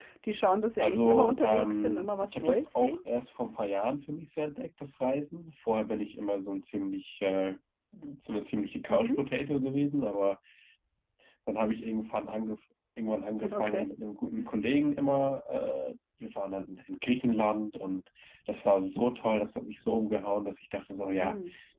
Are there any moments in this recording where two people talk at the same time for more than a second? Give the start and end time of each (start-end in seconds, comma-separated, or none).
0.8-3.0